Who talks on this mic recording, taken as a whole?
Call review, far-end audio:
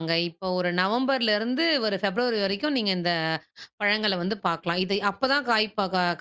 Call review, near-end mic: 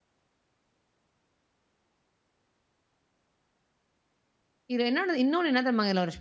user only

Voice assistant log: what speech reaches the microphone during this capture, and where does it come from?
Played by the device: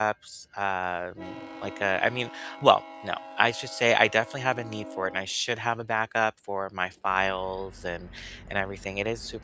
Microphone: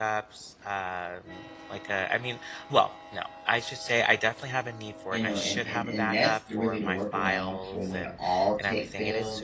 both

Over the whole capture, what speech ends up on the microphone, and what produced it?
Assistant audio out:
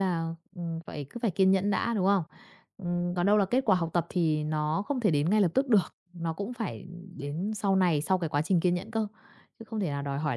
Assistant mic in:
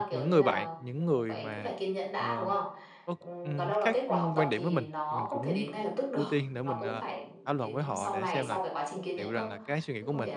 both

